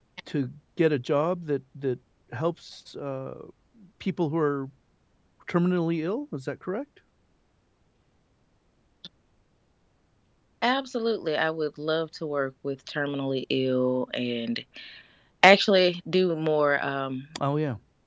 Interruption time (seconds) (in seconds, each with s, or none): none